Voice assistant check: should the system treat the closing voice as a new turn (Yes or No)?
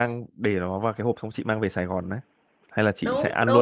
Yes